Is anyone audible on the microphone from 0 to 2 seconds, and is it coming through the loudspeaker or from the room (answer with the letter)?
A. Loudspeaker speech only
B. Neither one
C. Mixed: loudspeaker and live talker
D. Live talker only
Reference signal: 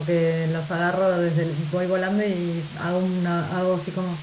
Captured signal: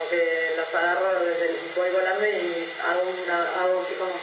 A